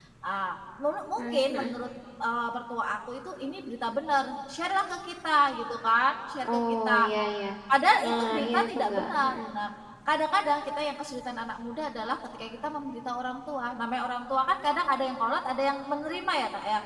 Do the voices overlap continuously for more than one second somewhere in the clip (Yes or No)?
Yes